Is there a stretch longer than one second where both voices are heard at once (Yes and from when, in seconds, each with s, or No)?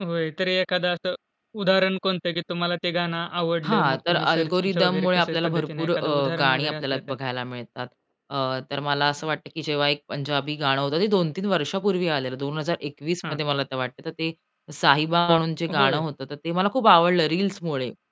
Yes, from 3.6 s